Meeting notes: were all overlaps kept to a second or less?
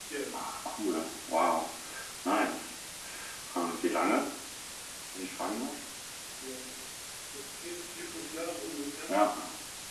Yes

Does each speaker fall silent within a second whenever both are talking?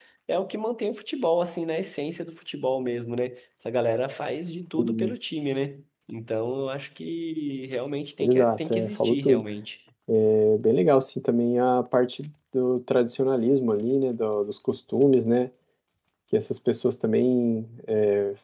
No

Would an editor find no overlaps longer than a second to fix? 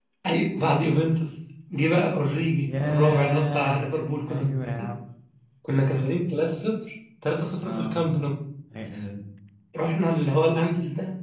No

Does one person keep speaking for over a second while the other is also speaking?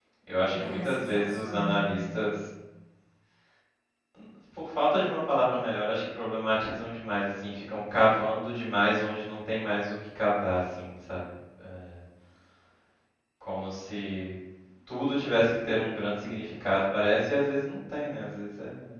Yes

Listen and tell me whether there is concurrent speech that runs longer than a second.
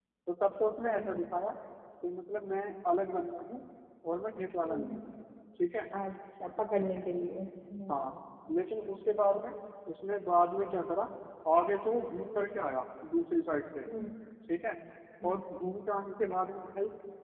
No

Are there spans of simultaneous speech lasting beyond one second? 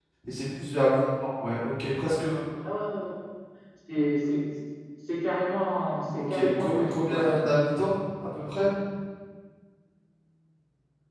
Yes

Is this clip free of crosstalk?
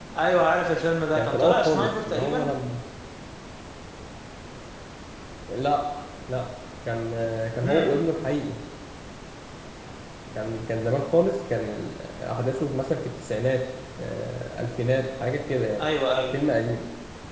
No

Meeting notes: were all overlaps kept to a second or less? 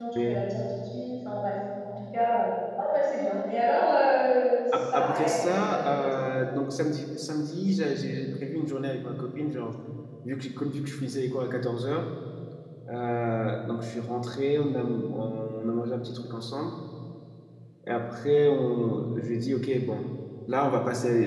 No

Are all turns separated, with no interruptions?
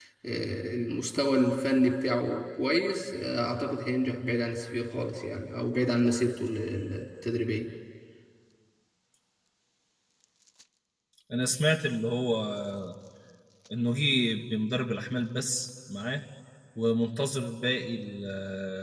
Yes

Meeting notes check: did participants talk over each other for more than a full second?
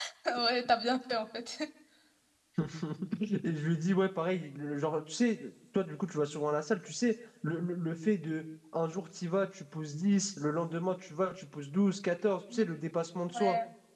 No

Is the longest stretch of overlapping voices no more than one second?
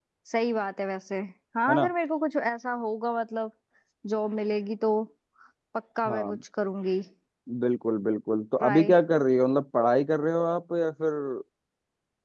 Yes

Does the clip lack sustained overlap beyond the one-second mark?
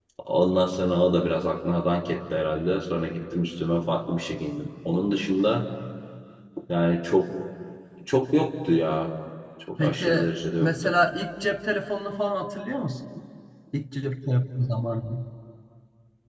Yes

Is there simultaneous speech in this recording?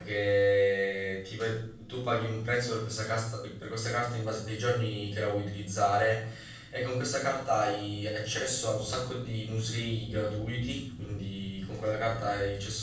No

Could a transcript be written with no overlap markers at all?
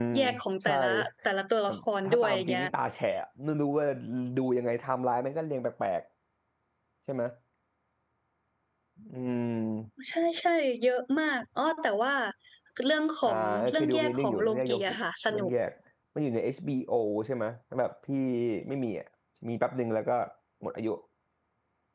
No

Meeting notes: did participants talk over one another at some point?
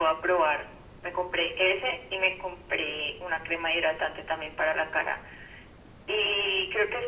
No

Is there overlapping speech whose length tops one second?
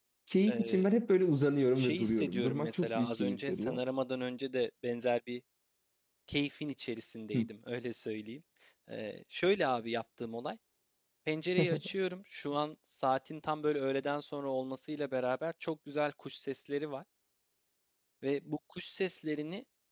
Yes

